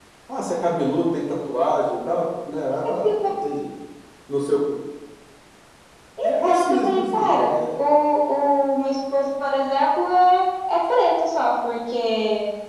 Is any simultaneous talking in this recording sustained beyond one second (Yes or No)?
Yes